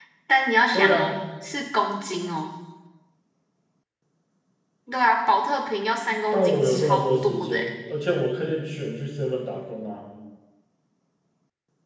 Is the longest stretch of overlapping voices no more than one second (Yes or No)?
No